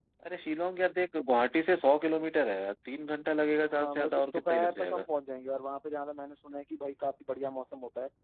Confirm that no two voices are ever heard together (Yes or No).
No